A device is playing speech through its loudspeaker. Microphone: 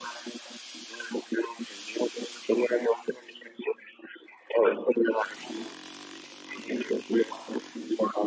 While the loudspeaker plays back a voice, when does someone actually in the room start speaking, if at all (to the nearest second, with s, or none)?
none